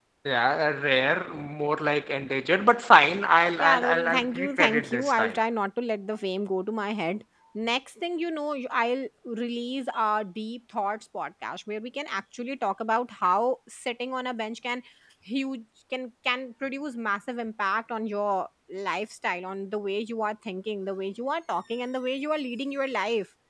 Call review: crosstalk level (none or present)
present